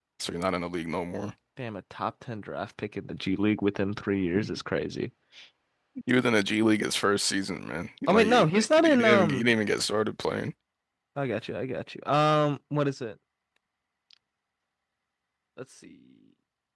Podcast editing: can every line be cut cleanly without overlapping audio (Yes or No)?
No